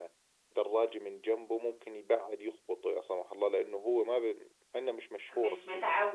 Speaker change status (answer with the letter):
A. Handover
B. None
A